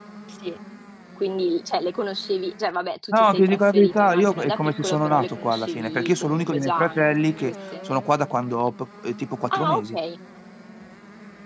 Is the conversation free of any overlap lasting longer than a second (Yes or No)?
No